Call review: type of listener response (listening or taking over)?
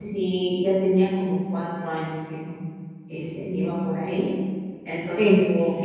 listening